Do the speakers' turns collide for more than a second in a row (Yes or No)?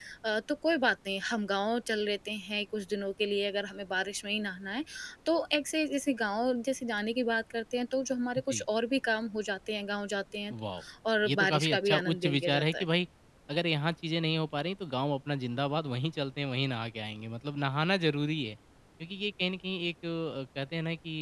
Yes